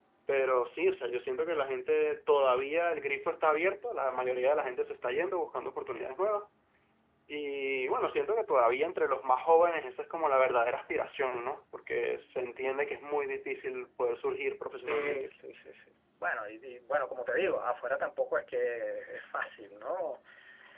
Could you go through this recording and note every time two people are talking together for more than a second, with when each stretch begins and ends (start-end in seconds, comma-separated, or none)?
none